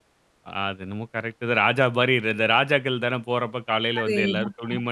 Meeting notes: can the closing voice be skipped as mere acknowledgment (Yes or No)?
No